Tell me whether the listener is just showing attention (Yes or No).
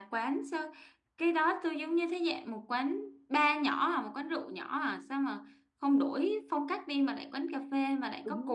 No